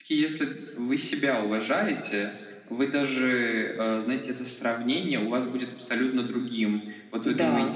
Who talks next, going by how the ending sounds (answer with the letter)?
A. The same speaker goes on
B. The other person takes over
A